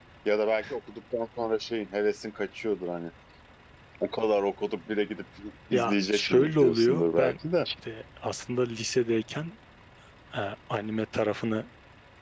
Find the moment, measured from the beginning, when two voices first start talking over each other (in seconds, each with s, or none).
5.7 s